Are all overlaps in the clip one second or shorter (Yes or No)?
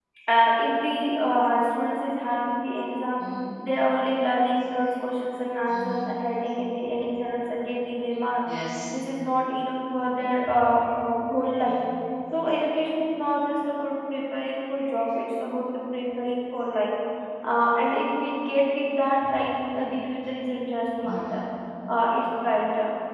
Yes